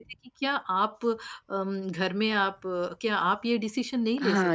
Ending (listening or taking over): taking over